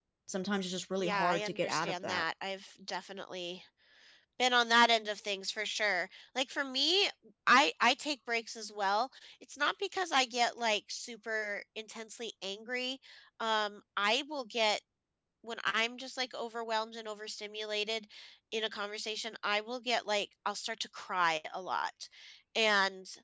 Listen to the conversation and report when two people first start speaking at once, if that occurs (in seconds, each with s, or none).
1.0 s